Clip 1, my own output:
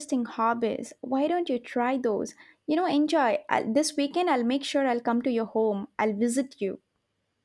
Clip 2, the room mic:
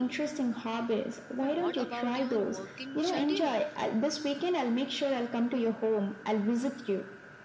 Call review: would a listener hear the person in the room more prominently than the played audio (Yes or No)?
No